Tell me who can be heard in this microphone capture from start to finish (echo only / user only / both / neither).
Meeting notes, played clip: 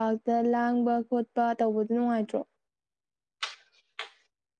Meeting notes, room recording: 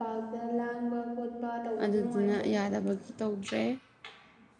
both